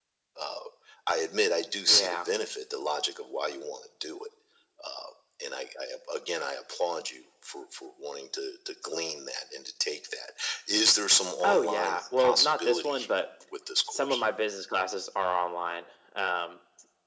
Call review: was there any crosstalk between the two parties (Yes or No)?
Yes